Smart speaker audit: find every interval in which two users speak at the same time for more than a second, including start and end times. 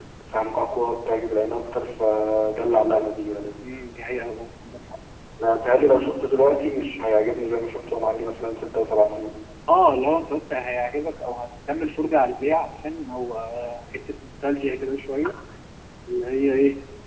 none

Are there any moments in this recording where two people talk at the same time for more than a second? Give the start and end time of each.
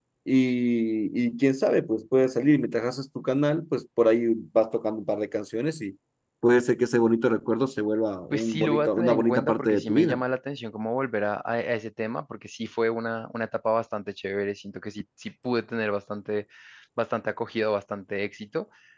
8.3-10.2

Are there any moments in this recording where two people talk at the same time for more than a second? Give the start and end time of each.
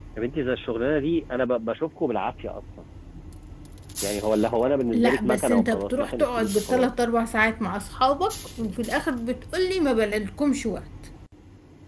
4.9-6.9

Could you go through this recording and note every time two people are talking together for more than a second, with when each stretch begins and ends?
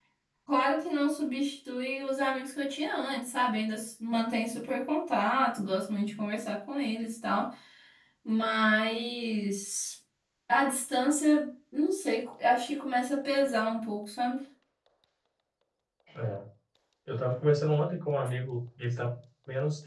none

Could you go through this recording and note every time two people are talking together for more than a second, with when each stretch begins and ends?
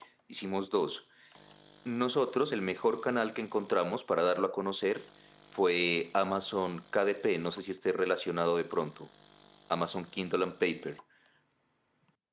none

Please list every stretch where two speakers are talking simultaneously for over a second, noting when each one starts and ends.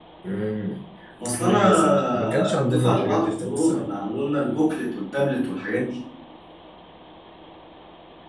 1.4-3.8

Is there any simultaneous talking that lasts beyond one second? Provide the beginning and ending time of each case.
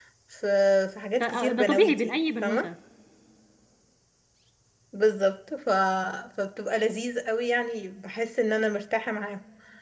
1.2-2.7

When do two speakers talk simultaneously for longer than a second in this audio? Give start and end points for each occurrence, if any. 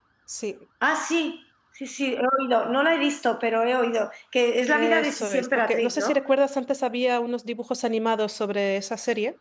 4.7-6.2

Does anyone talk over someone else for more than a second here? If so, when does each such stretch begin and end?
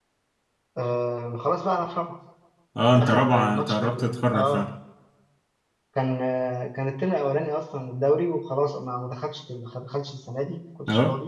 3.0-4.7

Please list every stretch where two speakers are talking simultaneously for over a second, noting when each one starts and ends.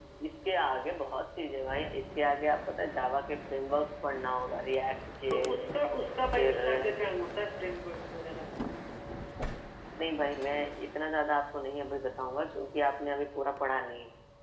none

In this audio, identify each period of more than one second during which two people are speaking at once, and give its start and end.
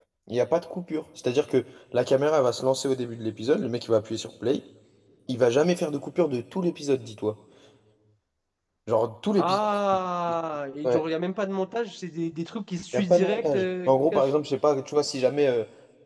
12.9-14.3

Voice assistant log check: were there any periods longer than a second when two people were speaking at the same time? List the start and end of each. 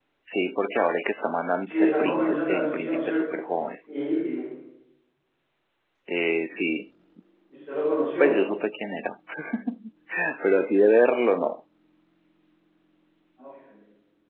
1.7-3.4

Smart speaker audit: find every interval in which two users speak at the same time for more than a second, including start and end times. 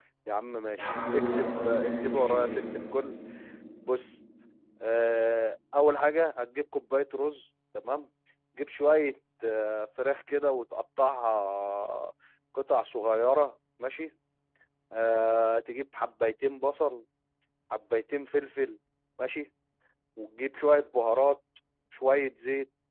0.8-2.6

